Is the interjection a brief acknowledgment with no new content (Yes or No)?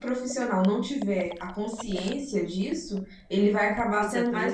Yes